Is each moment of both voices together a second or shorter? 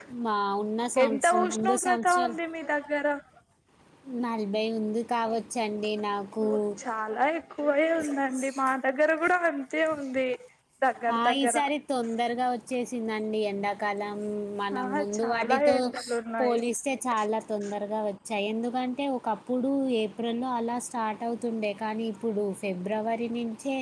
No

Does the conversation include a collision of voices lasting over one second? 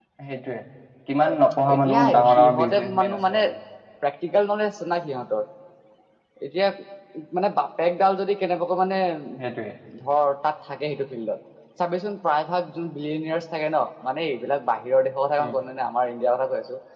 Yes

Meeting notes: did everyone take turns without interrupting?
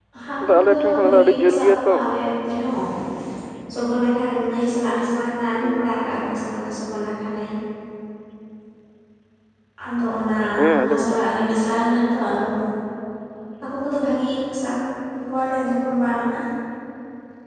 No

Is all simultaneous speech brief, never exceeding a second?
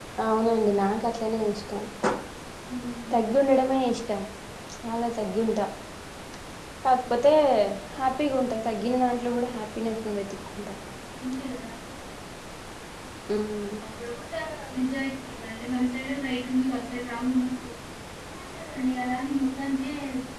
Yes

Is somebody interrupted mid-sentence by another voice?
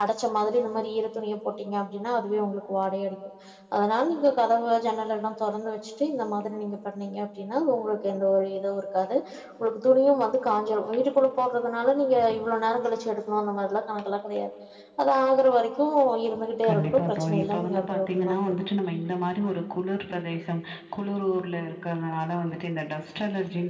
Yes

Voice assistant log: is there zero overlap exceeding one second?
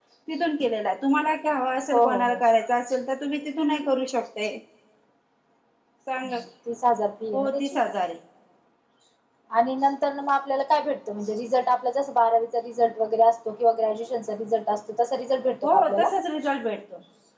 Yes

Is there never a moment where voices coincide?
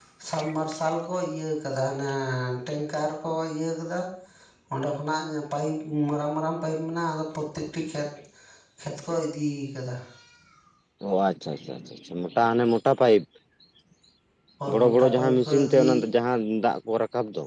No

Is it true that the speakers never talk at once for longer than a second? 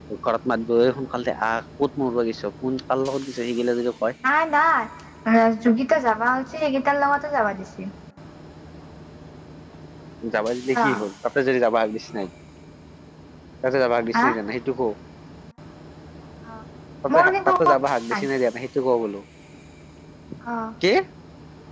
Yes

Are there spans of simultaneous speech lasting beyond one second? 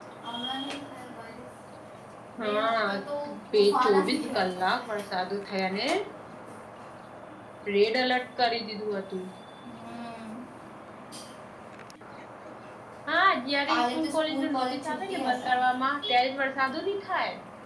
Yes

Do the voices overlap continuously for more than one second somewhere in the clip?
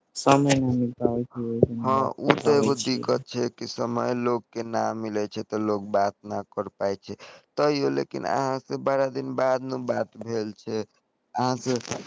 Yes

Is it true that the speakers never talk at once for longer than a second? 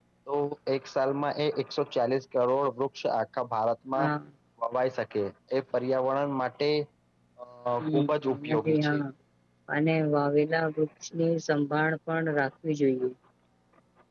No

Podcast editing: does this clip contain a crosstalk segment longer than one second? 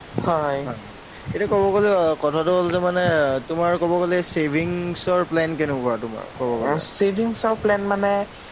No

